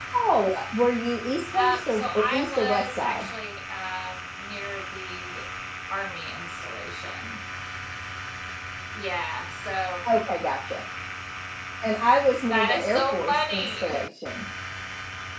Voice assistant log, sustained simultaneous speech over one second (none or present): present